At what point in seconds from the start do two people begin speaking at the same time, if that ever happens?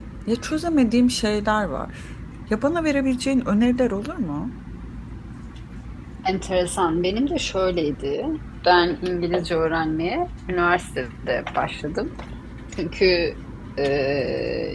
none

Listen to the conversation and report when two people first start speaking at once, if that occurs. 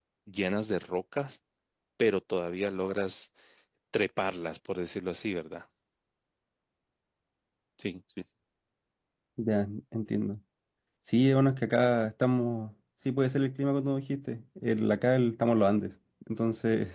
none

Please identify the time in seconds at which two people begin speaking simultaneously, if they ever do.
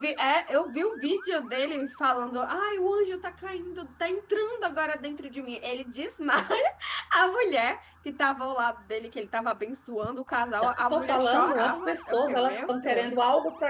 10.6 s

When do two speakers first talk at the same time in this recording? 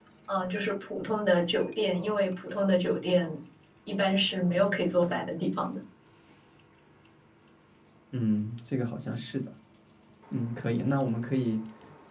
none

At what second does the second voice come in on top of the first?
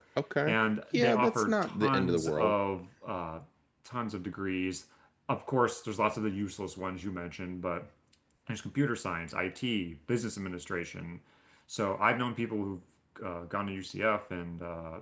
0.9 s

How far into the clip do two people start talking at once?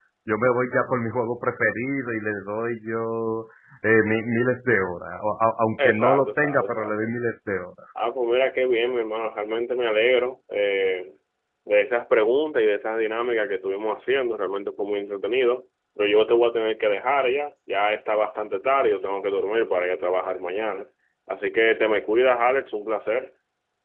5.8 s

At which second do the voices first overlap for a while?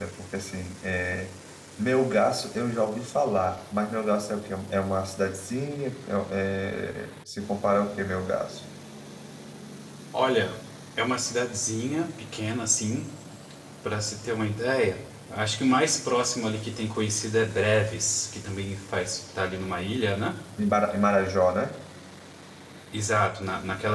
none

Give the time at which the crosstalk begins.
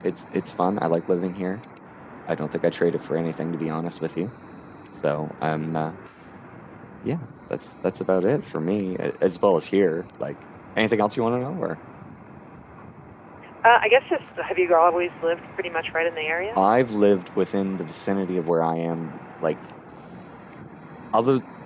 none

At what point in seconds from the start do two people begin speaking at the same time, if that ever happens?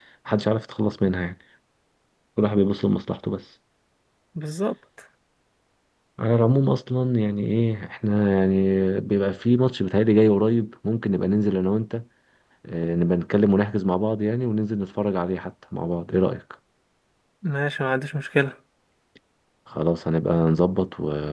none

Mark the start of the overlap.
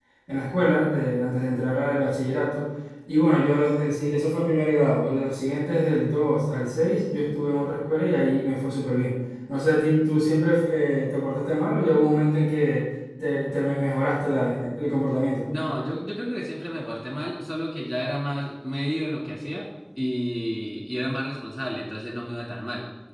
none

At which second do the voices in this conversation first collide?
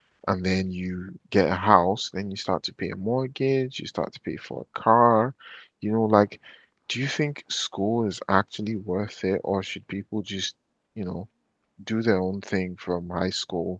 none

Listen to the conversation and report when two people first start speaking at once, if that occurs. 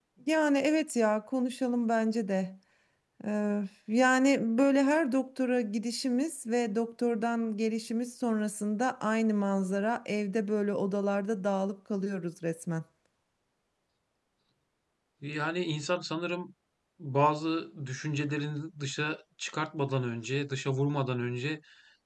none

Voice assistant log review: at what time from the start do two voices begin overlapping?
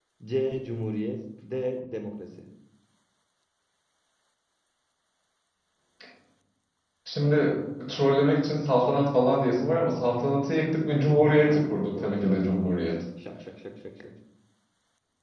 11.4 s

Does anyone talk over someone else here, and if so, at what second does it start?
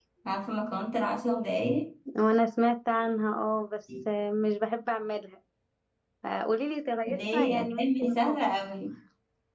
7.1 s

